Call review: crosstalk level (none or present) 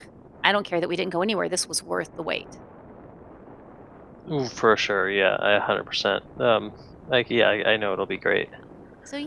none